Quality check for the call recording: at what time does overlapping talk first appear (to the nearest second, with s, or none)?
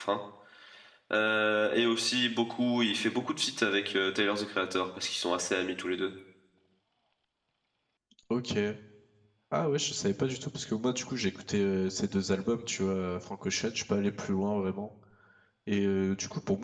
none